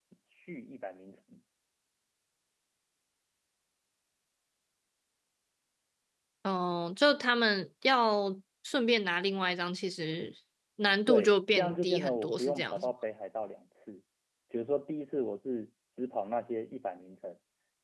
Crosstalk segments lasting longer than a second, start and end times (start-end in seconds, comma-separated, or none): 11.1-12.9